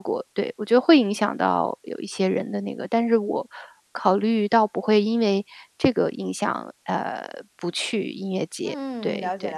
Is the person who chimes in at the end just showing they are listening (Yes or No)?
No